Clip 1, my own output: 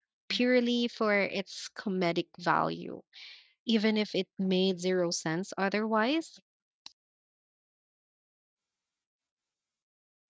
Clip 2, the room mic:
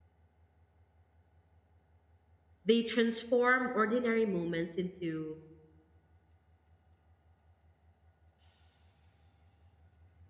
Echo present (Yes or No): No